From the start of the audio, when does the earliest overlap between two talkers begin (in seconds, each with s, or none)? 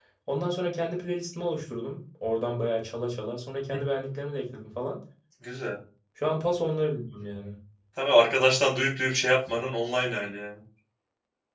none